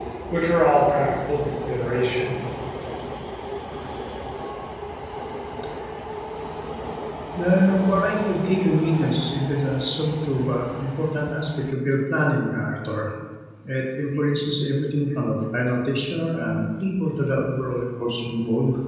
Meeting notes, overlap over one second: none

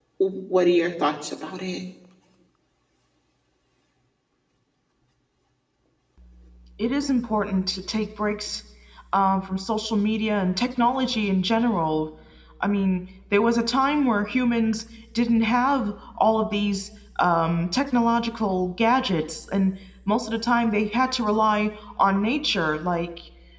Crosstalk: none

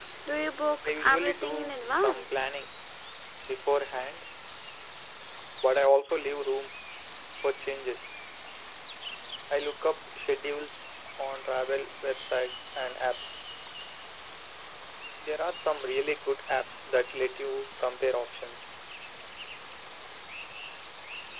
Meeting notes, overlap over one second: present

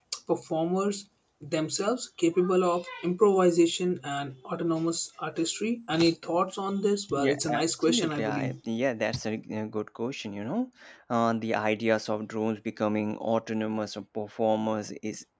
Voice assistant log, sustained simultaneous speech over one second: present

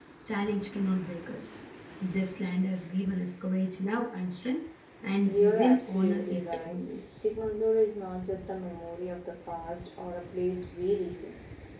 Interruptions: present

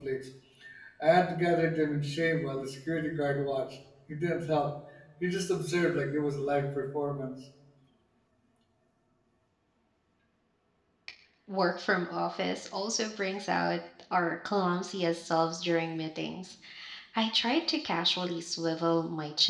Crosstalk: none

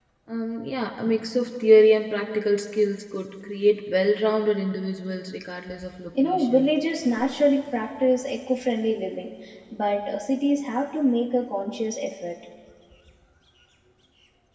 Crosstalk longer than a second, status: none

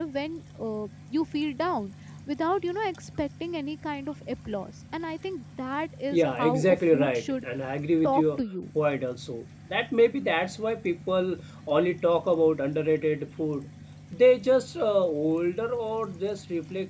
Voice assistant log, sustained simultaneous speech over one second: present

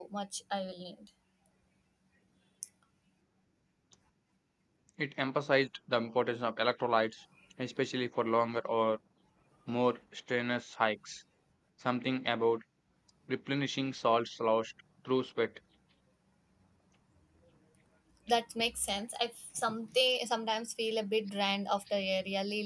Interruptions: none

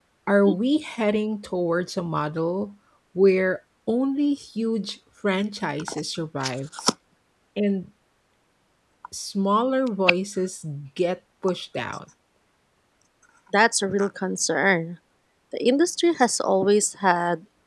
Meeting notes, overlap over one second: none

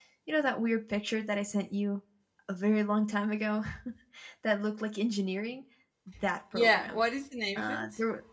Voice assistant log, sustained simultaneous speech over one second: none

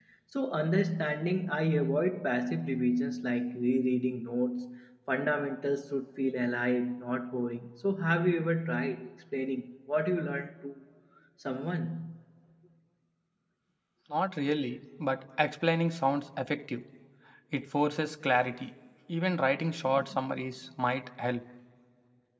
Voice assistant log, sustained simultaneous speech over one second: none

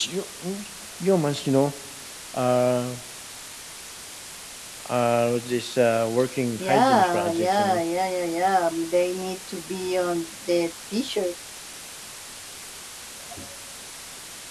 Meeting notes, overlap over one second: present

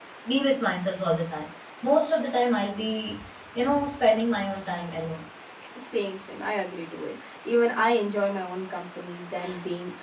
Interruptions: none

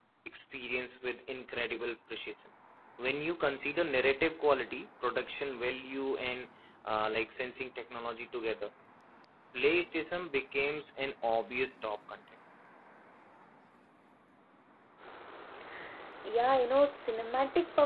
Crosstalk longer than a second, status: none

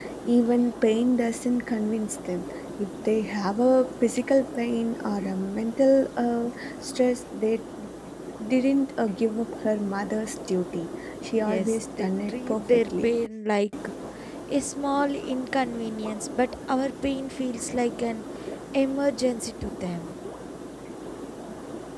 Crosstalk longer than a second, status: present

